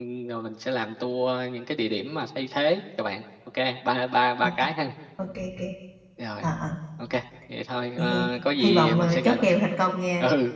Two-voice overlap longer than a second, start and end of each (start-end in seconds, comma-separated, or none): 8.0-9.5